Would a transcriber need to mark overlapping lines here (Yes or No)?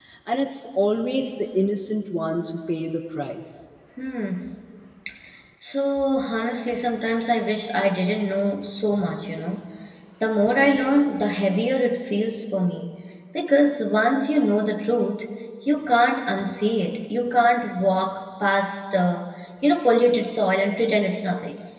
No